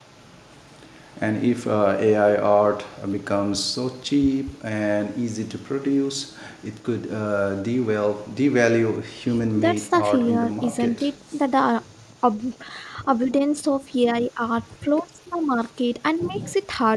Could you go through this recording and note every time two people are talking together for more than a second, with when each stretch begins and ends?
9.6-11.1

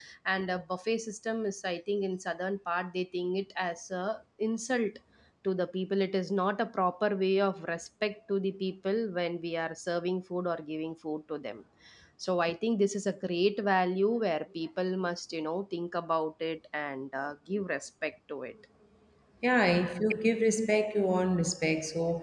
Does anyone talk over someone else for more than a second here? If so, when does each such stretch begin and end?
none

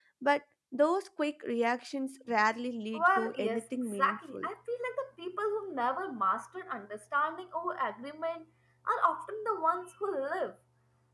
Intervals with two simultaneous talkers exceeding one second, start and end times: 2.9-4.5

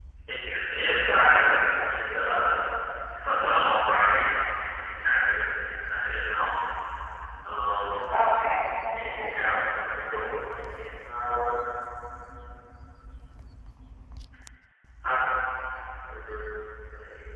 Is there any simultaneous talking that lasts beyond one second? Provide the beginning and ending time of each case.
none

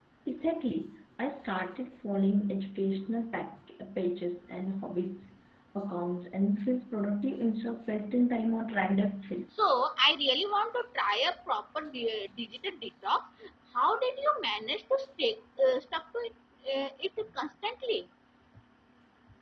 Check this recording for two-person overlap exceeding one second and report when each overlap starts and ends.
none

